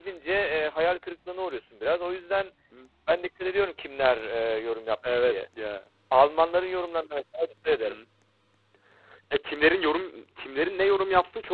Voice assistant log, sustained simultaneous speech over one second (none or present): none